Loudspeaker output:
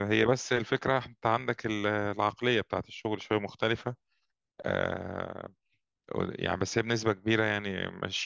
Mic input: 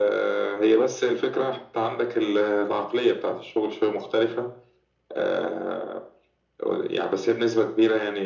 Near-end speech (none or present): none